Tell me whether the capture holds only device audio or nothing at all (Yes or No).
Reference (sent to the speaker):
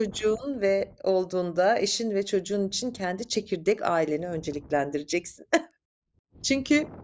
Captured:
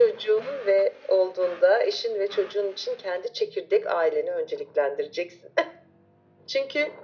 Yes